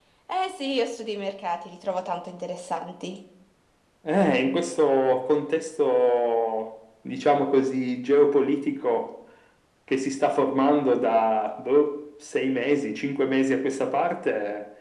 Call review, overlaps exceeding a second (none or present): none